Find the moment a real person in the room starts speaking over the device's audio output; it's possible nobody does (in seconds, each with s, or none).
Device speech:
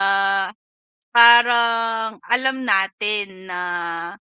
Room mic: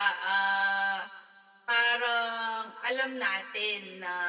none